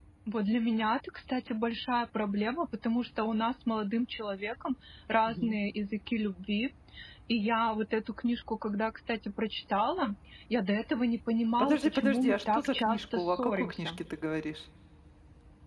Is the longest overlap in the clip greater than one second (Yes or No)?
Yes